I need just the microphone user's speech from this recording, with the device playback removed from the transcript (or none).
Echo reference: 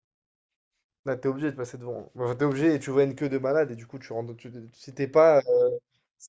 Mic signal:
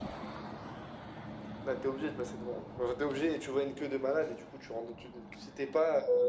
none